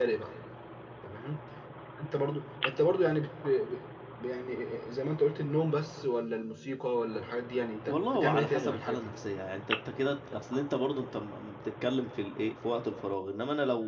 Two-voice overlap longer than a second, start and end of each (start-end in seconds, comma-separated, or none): 7.9-9.1